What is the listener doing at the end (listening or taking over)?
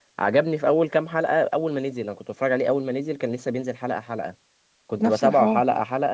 listening